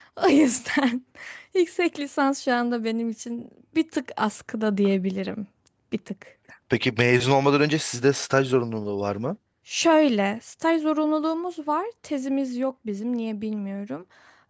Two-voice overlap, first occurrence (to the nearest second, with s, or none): none